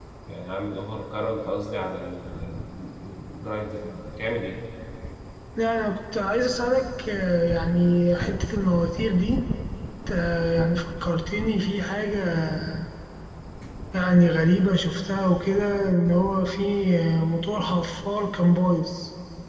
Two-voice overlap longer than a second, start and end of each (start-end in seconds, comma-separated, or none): none